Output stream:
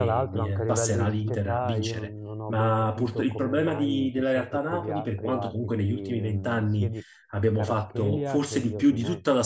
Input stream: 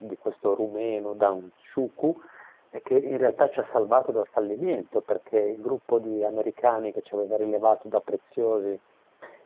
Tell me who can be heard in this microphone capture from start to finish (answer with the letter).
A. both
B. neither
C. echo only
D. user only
D